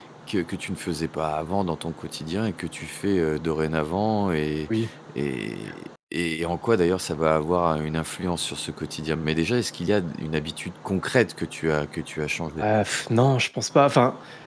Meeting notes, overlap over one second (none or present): none